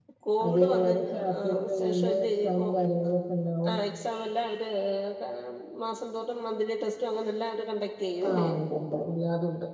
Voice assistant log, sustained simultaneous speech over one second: present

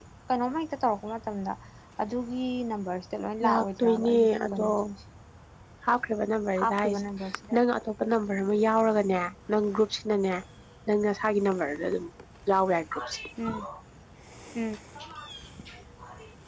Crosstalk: present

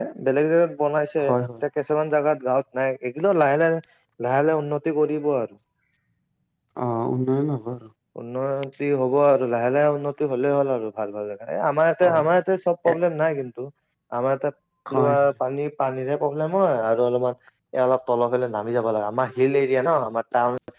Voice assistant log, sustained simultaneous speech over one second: none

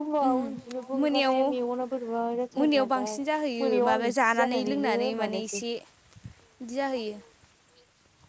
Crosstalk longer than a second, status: present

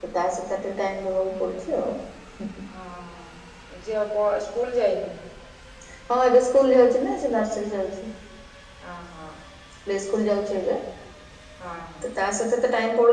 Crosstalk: none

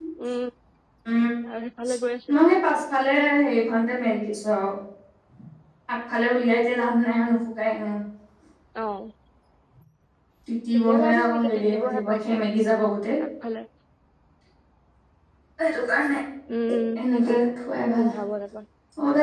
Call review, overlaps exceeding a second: present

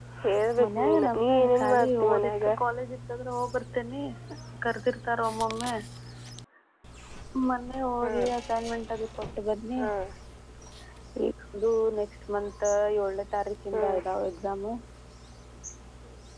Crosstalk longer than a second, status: present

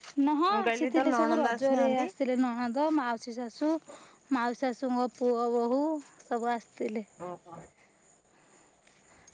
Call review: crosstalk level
present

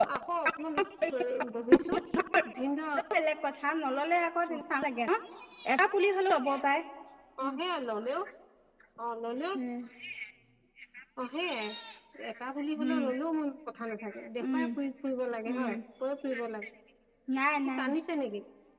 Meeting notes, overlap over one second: none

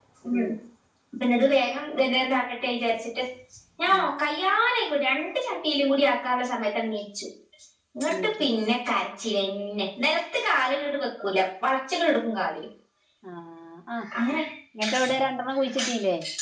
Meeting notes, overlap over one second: none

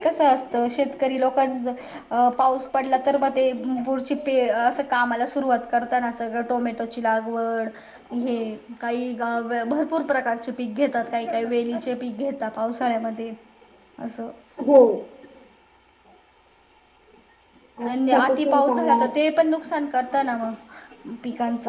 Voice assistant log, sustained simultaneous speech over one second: present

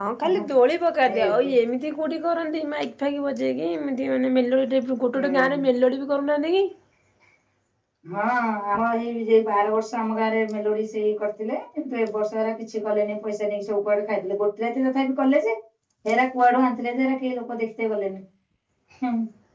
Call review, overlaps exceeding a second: none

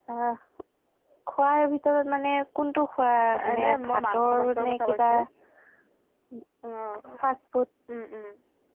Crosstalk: present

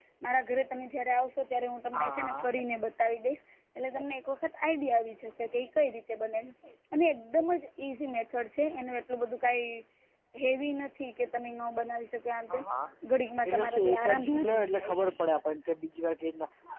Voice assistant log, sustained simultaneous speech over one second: present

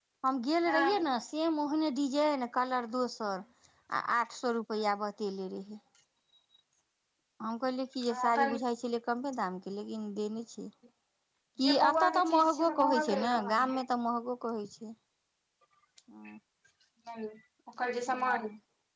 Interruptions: present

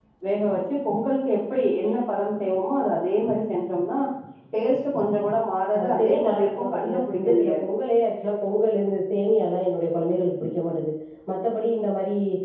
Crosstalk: present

